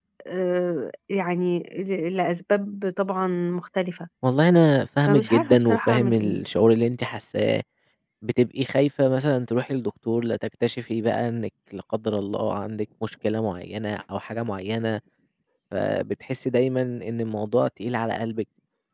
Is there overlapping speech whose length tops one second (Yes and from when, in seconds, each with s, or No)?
Yes, from 5.1 s